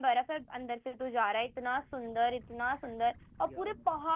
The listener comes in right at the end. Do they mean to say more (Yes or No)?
No